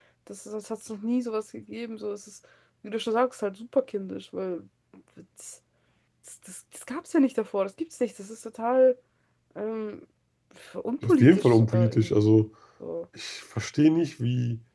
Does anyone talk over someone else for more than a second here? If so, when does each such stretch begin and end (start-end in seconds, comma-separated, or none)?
11.1-12.3